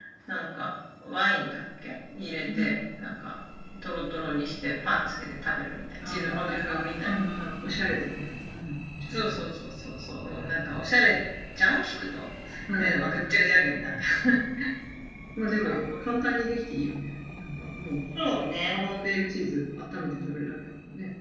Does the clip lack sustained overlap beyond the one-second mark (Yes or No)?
No